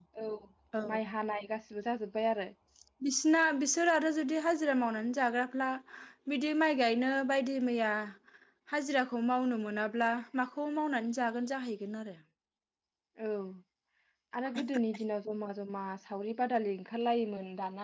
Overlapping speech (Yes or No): No